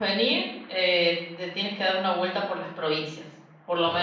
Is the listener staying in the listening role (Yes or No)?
Yes